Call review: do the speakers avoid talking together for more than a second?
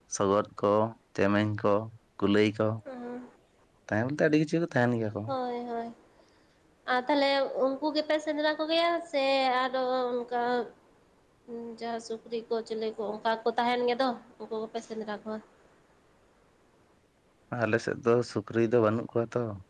Yes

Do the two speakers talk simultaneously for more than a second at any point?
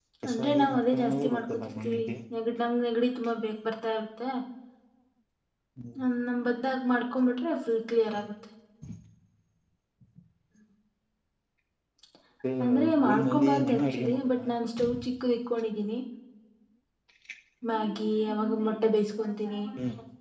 Yes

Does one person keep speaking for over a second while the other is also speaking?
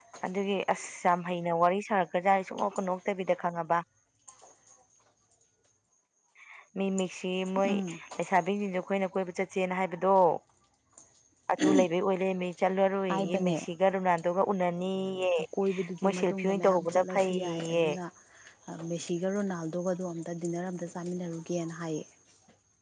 Yes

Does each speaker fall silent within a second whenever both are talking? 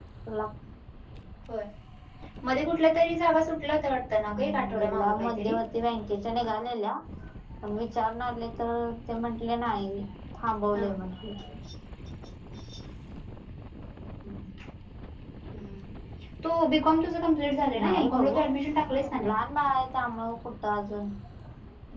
No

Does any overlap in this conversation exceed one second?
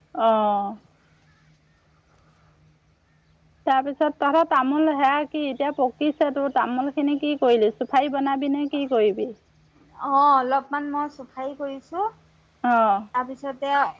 No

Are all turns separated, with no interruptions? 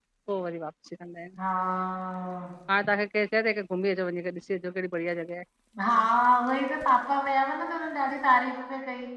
Yes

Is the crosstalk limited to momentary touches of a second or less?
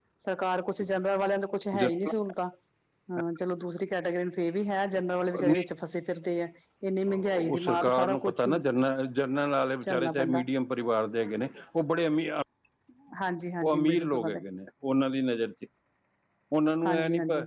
No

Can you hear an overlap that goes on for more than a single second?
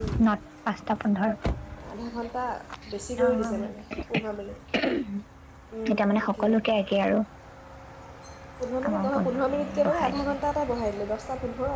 Yes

